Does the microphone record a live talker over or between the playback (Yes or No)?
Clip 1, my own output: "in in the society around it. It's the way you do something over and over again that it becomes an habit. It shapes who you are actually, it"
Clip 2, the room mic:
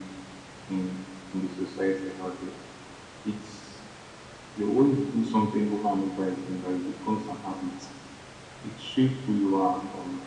No